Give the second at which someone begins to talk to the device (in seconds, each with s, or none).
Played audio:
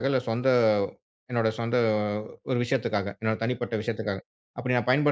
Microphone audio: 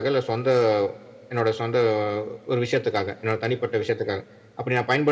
none